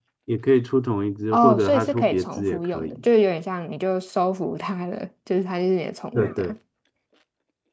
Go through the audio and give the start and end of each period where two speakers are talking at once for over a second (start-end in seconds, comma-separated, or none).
1.3-3.0